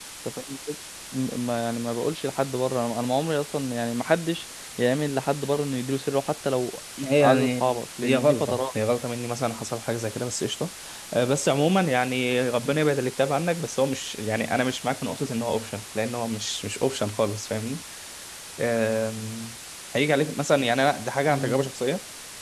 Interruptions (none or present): present